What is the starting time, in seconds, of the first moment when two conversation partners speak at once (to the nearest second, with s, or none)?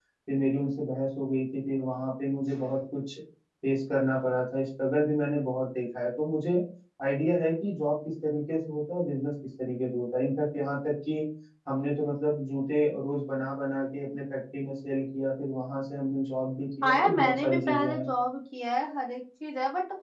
17 s